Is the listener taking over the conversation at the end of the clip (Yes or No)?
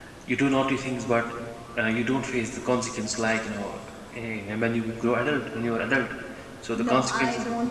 Yes